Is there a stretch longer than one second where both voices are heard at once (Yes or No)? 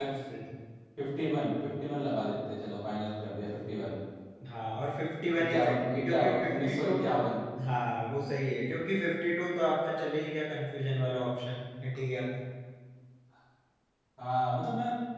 Yes